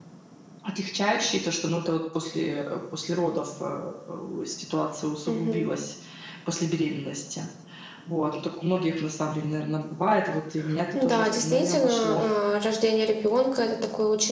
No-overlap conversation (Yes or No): No